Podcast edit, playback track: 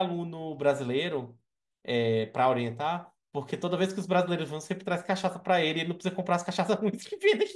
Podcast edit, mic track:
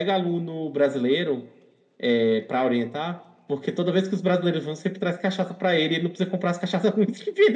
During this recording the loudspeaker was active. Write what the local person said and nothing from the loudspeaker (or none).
none